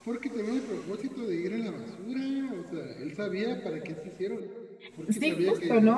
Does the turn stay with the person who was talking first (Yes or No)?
No